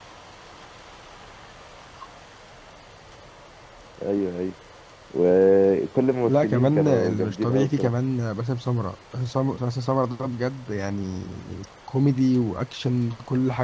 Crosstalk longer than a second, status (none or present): present